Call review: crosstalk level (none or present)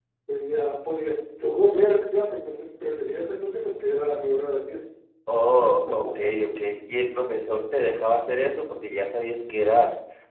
none